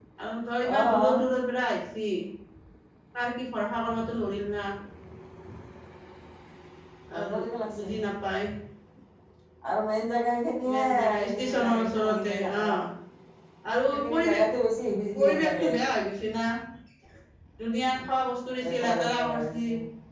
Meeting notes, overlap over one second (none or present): present